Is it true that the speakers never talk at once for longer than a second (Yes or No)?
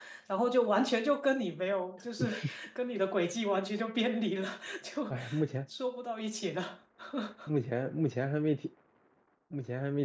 Yes